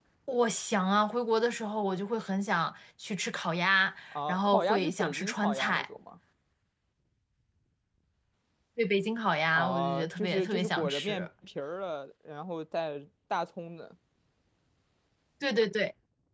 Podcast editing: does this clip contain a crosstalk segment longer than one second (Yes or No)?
Yes